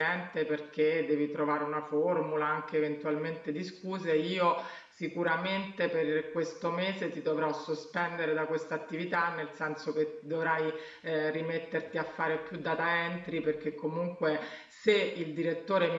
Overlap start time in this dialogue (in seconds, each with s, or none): none